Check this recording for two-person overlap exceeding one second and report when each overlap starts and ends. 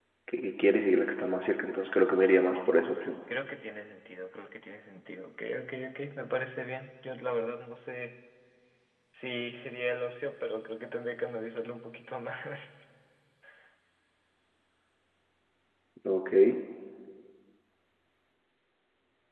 none

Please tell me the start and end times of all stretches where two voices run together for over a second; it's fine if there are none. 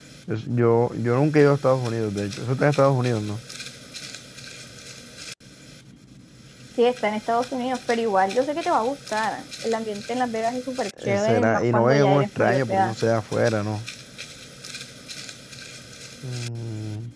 11.0-12.9

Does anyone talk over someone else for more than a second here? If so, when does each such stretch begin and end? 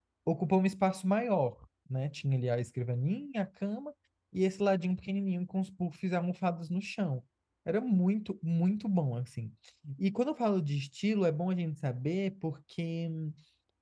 none

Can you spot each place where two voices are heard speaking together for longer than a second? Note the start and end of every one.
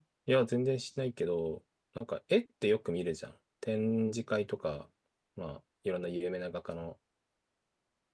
none

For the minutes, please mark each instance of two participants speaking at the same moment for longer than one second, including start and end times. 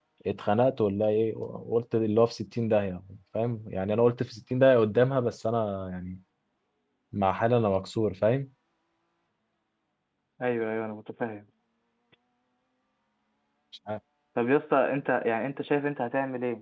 none

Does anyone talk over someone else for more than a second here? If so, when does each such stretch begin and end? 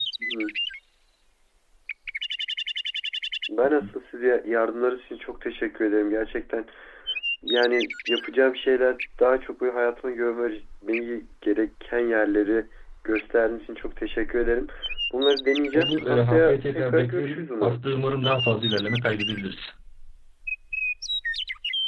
15.7-17.8

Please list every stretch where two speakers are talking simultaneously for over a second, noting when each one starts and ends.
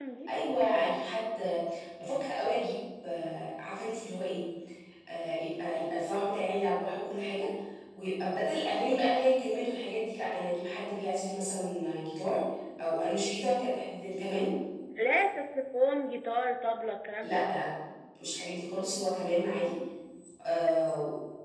none

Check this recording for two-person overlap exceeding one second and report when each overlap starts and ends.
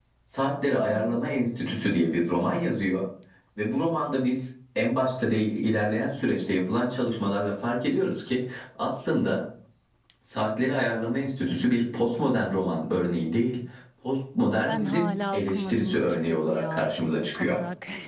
14.7-17.6

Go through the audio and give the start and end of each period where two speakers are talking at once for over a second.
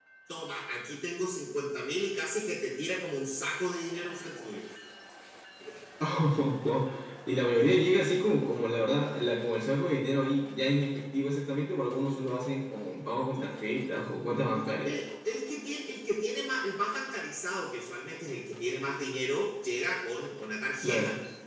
none

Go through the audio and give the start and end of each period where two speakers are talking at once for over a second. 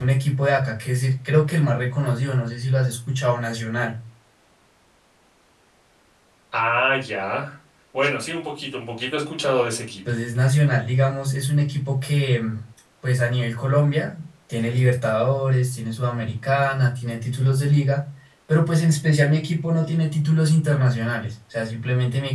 none

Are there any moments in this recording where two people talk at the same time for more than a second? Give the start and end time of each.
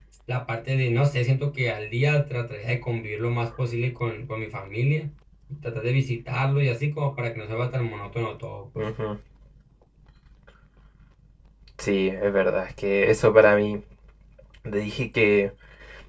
none

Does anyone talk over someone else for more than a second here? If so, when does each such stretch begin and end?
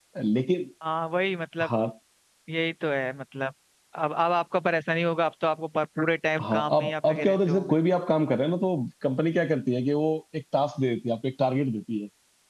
6.4-7.8

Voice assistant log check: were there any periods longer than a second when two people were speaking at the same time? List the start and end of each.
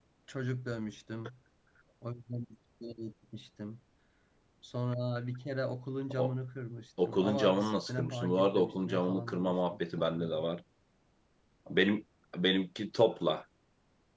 7.0-9.6

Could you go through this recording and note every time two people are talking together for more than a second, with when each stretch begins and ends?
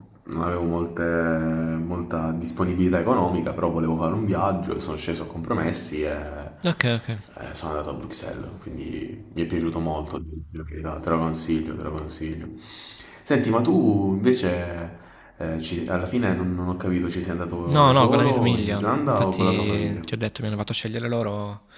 17.7-20.0

